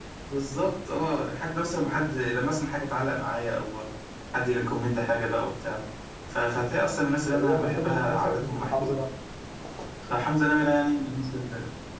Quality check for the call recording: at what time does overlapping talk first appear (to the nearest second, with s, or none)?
7 s